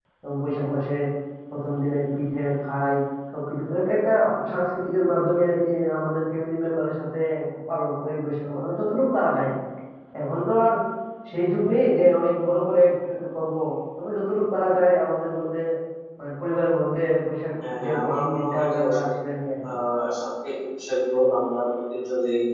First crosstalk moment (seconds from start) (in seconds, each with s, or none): 17.6 s